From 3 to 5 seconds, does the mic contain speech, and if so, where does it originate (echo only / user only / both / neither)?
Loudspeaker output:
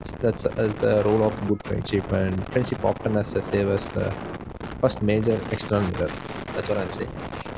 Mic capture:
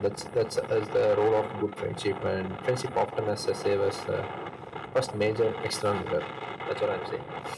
echo only